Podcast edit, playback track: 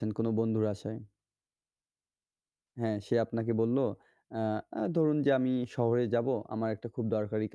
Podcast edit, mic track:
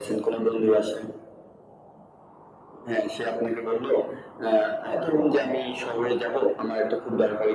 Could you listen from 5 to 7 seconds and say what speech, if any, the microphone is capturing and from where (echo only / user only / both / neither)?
echo only